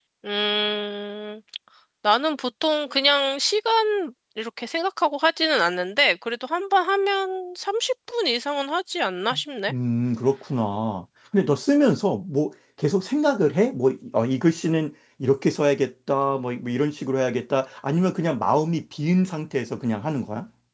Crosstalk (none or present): none